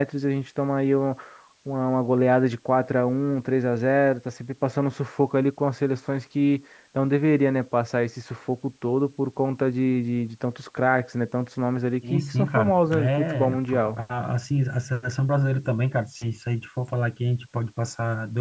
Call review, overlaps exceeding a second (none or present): present